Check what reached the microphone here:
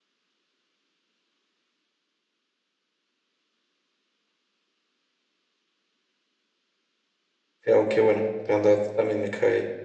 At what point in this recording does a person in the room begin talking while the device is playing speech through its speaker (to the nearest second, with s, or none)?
8 s